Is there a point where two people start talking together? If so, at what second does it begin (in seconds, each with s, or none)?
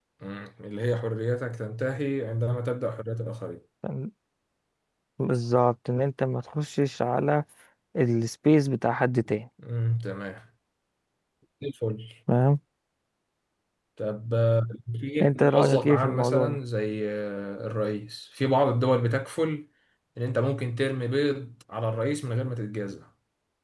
15.2 s